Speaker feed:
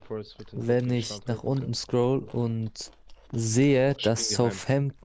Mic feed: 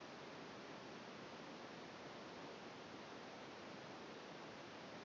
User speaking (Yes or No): No